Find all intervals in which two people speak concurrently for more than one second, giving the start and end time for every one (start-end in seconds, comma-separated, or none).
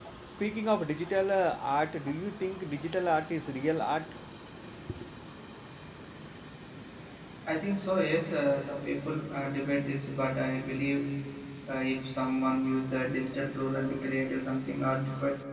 none